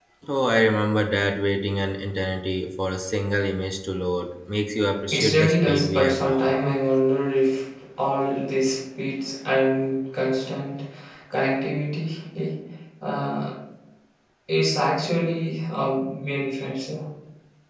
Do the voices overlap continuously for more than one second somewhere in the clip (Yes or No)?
Yes